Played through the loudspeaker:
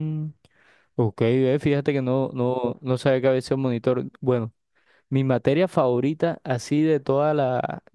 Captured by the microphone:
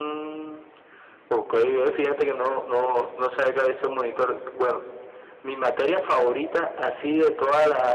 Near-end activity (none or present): none